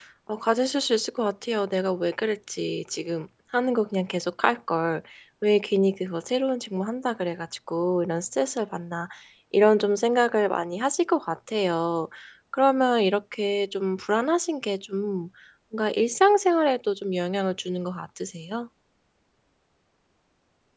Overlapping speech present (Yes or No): No